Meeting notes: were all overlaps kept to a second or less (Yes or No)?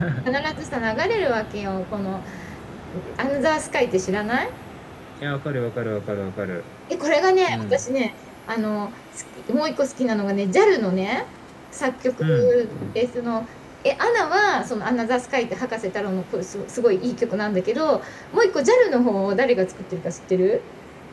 Yes